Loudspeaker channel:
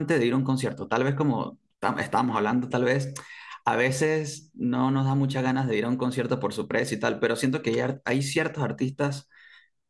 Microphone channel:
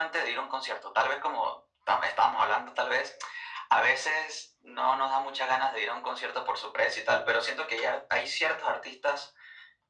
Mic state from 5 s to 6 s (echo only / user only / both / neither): echo only